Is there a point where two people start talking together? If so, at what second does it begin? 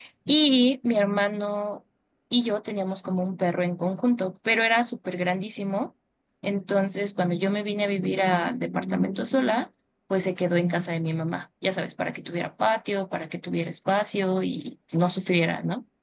none

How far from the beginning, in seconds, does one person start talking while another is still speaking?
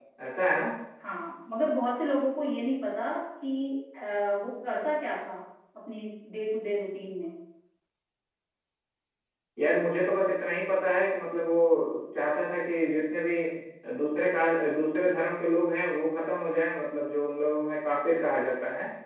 none

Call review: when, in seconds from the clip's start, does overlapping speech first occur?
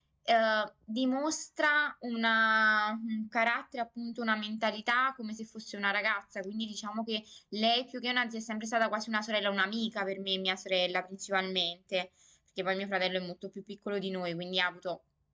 none

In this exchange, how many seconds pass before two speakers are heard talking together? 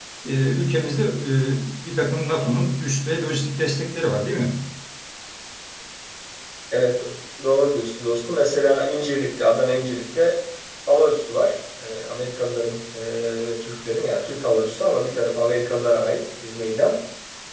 none

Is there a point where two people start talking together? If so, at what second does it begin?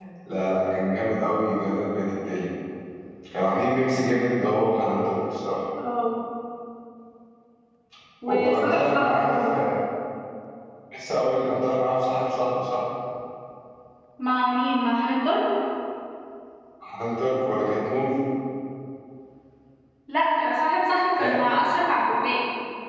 8 s

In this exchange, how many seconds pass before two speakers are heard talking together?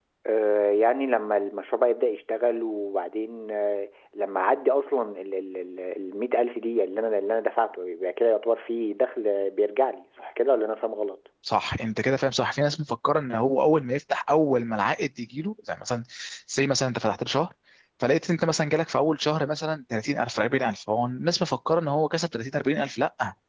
none

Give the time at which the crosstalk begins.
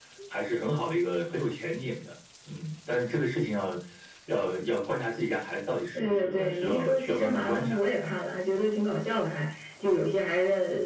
6 s

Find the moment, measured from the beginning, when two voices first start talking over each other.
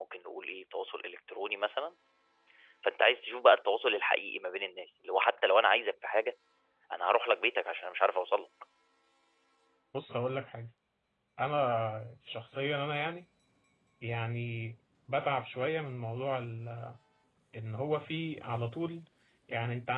none

